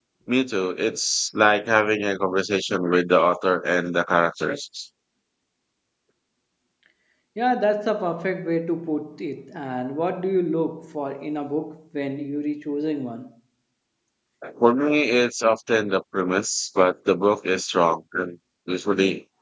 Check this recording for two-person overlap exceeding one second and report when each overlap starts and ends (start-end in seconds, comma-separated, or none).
none